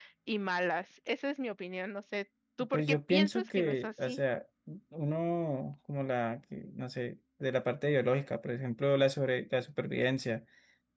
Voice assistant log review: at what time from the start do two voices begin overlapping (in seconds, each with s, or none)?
2.7 s